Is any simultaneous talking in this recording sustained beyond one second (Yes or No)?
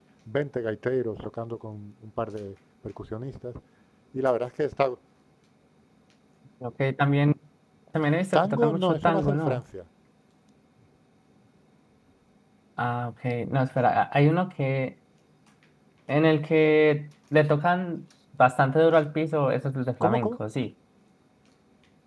Yes